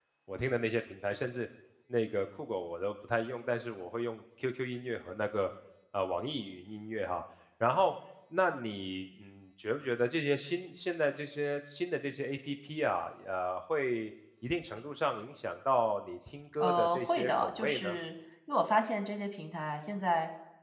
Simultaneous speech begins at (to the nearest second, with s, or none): 17 s